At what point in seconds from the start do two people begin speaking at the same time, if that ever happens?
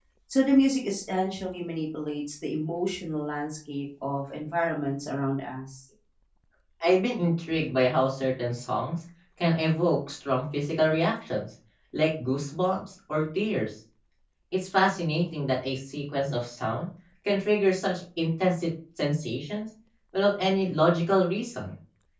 none

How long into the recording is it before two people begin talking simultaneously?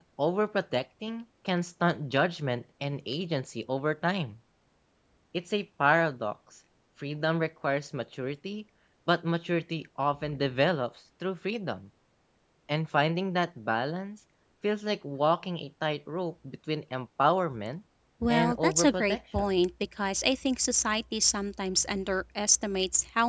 18.3 s

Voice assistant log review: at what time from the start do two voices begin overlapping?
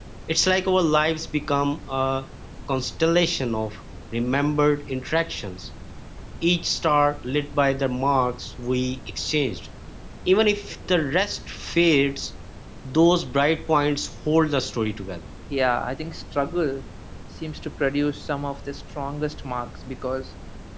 none

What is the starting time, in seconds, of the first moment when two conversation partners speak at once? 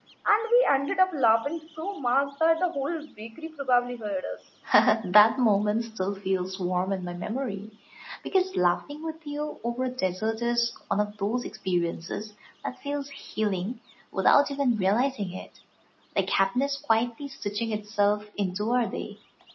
none

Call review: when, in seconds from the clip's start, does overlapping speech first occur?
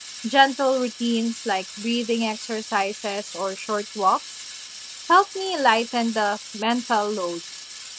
none

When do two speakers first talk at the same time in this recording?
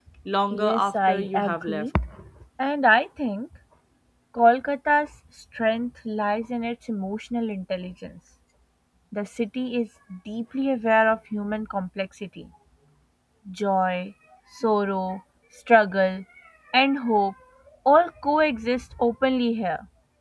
0.6 s

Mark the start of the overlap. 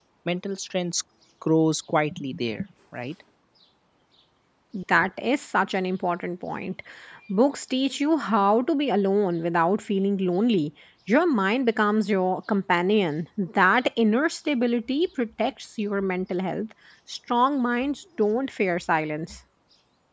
none

